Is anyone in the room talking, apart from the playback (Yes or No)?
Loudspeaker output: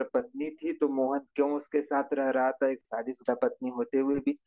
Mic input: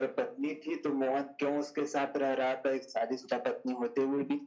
No